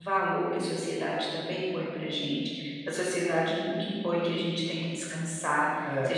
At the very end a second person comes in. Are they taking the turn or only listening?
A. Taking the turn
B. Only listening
B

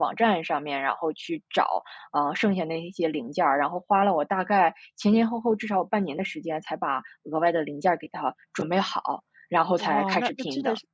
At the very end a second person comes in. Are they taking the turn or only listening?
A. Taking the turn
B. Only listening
A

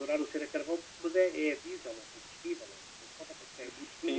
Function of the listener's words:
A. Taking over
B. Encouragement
A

